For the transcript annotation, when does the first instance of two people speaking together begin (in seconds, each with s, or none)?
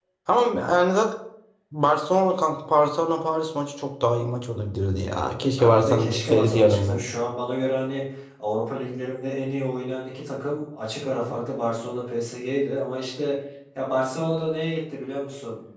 5.4 s